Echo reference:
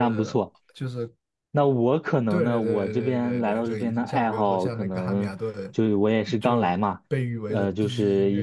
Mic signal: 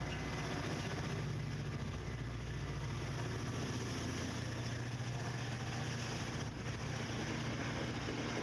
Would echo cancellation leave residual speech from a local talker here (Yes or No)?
No